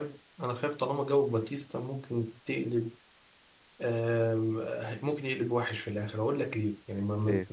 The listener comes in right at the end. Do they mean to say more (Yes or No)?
No